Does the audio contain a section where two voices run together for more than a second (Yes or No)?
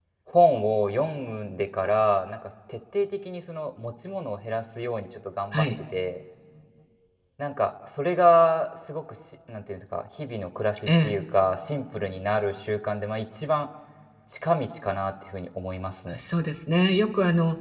No